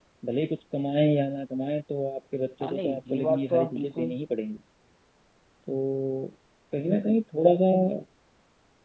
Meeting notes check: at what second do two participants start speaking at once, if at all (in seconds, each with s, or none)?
2.6 s